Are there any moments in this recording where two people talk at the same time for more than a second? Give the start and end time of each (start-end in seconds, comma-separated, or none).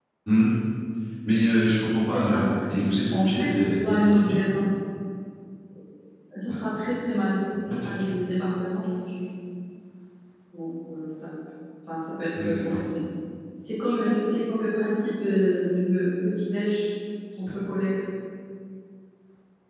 3.1-4.4